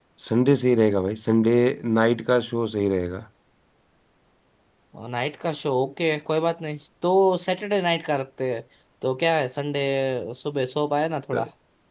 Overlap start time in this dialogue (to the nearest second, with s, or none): none